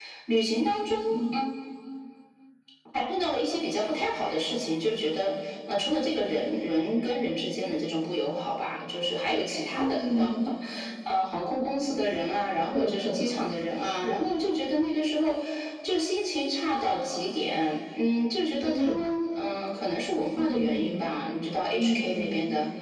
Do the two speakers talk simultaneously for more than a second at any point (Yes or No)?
Yes